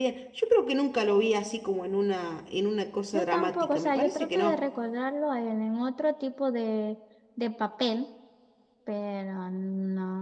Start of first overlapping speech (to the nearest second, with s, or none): 3 s